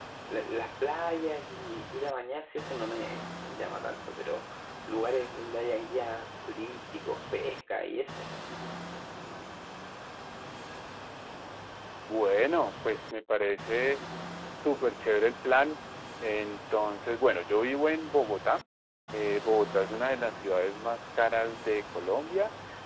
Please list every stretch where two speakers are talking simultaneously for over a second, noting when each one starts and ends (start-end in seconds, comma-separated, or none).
none